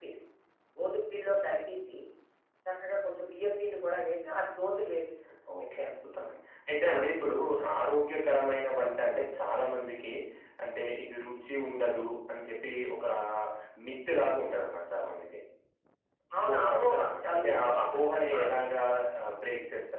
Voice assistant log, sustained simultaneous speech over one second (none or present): present